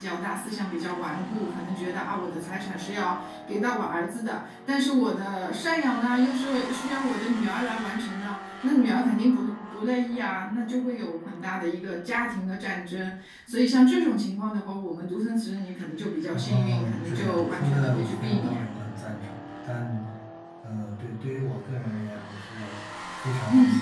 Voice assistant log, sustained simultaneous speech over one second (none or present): present